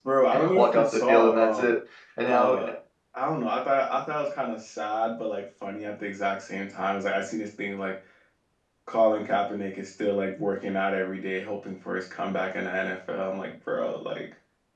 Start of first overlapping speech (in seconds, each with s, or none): 0.5 s